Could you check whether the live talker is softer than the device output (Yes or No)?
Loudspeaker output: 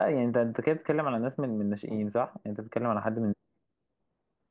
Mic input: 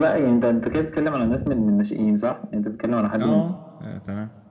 Yes